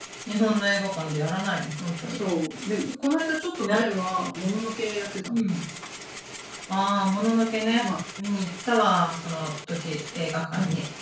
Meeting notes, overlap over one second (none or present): none